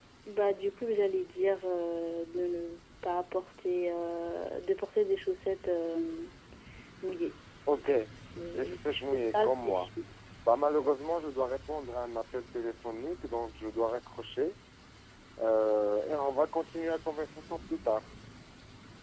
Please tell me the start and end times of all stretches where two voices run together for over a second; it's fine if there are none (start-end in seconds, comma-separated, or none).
8.5-9.9